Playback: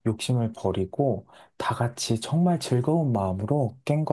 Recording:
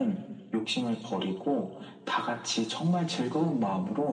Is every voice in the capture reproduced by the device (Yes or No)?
Yes